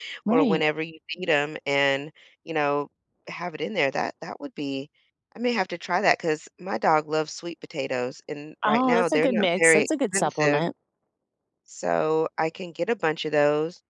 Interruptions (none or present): present